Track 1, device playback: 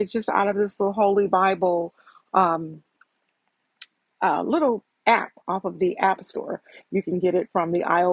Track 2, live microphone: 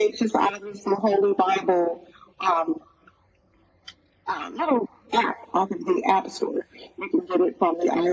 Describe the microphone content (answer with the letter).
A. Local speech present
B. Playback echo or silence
B